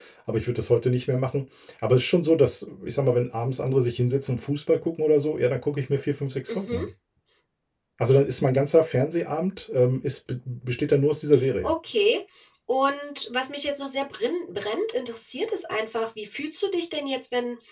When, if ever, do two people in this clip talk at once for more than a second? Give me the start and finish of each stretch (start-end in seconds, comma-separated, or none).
none